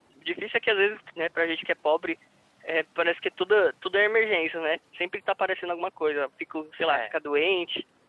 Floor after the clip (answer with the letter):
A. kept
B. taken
A